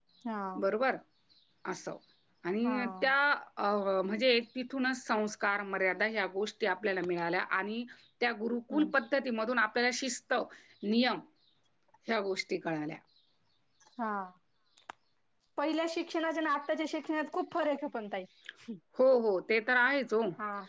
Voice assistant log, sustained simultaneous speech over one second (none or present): none